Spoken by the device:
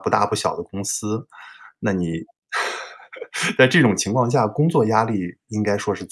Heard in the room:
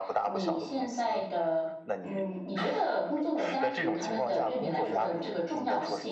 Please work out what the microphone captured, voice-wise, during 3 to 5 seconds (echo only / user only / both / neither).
both